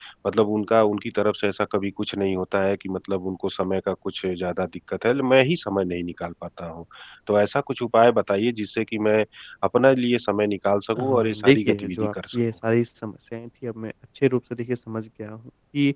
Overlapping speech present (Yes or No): Yes